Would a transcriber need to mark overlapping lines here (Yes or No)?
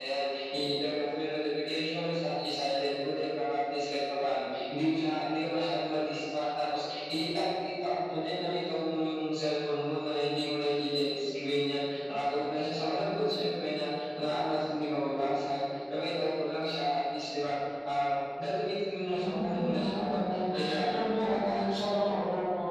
Yes